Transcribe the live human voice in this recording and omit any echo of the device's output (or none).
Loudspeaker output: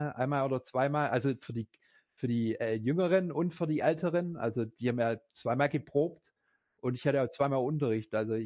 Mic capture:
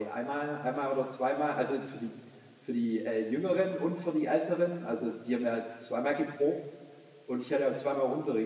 none